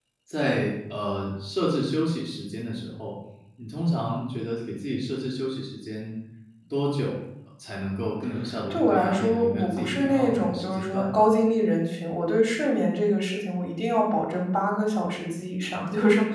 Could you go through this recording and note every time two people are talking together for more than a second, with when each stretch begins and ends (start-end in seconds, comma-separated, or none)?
8.7-11.2